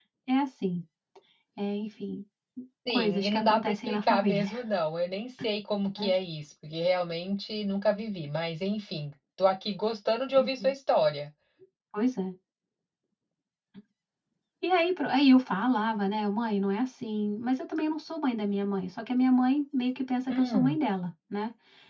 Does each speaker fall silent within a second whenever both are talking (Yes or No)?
No